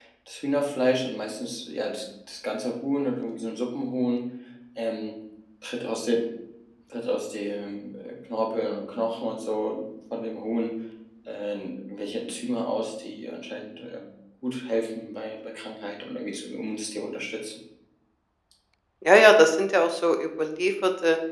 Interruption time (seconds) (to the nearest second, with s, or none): none